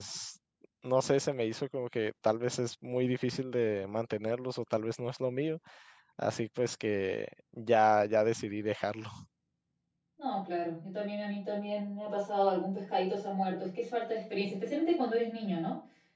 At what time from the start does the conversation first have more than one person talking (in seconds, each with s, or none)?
none